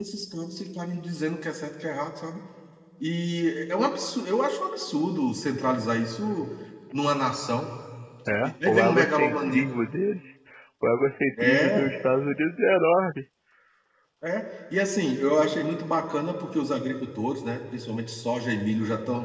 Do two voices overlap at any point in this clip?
Yes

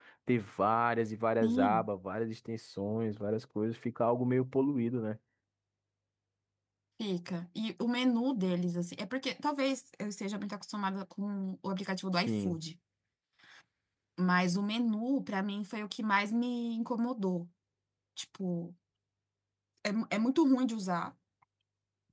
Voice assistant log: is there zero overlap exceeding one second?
Yes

